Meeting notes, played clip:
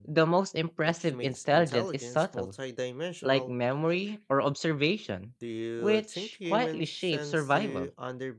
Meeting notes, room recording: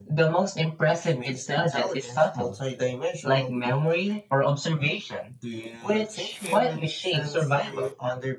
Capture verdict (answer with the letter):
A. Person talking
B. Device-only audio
B